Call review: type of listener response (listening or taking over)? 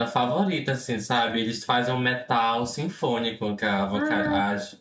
listening